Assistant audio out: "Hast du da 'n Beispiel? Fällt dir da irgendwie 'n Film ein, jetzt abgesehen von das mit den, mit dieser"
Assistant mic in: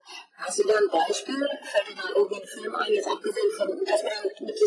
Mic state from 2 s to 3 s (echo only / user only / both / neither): echo only